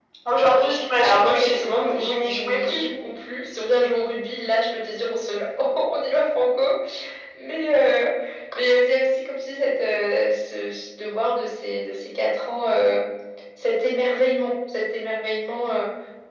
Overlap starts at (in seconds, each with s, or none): 1.0 s